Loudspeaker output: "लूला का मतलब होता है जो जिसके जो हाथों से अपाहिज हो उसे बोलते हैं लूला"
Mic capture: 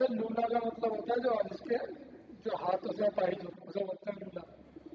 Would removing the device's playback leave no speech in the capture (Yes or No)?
Yes